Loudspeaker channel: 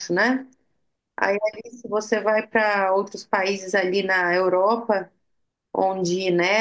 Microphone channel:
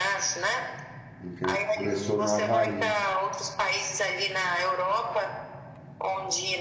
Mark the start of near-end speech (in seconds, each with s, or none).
1.2 s